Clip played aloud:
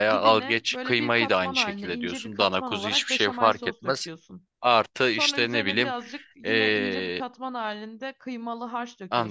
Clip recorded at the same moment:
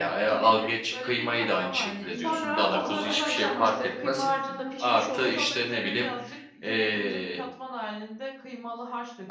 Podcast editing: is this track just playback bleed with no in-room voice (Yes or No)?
No